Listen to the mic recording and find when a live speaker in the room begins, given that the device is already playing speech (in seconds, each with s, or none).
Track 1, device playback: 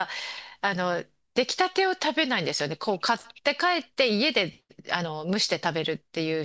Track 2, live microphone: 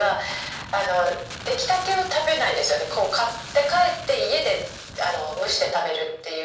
none